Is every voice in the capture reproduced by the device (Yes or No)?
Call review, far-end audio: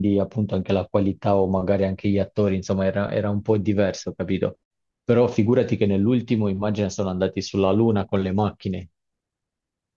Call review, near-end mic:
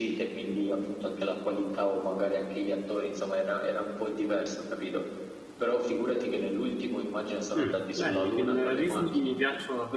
No